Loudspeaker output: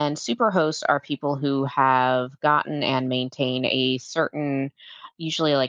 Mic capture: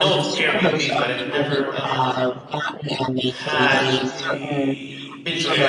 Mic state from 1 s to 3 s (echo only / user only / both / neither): both